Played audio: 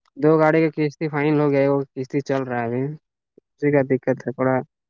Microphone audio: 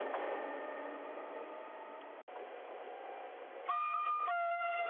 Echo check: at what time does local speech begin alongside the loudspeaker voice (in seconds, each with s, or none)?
none